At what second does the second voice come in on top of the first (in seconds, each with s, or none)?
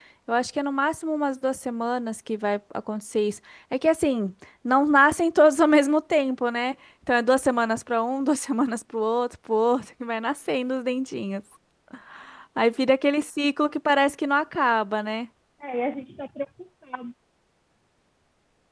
none